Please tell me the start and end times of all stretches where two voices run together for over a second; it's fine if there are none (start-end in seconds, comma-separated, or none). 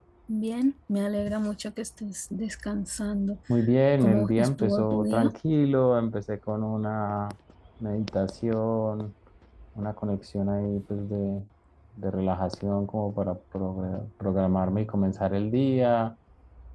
4.0-5.3